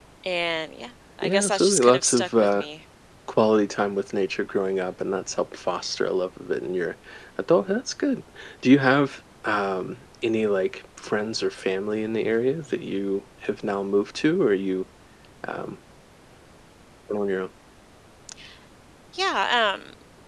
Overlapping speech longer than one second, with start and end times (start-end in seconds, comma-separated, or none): 1.2-2.6